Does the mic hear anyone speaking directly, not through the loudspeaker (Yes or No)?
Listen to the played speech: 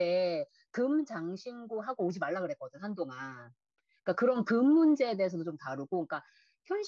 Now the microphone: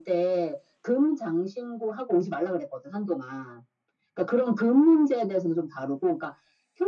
No